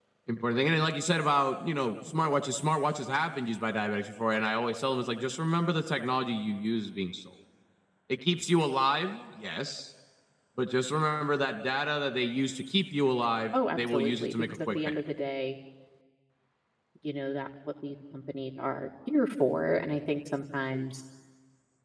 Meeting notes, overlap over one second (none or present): present